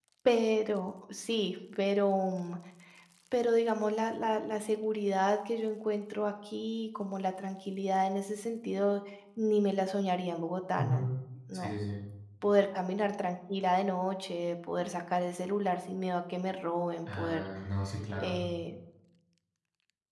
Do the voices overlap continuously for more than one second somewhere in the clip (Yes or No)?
No